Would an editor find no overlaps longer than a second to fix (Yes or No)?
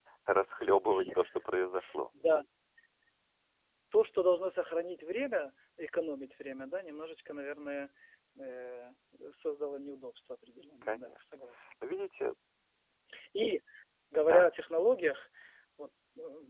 Yes